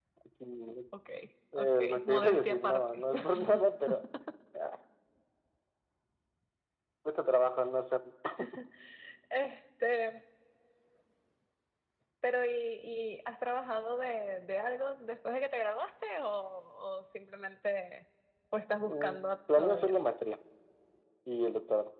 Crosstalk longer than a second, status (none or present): present